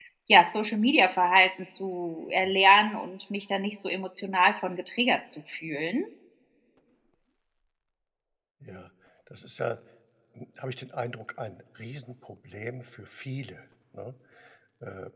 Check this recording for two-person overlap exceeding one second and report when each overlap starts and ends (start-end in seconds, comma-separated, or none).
none